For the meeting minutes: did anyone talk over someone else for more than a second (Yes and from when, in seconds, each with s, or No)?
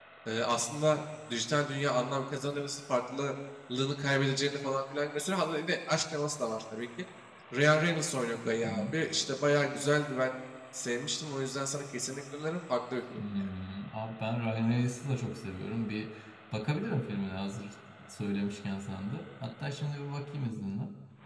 No